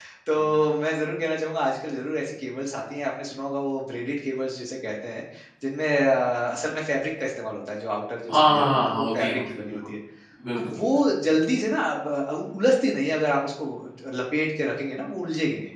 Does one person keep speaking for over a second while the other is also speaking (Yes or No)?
Yes